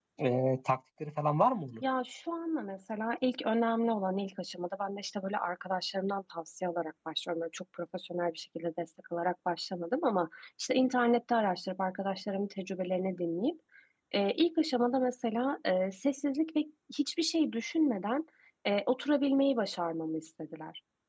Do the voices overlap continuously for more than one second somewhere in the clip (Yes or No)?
No